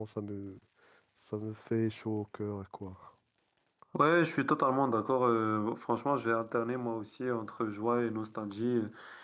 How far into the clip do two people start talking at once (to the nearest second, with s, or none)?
none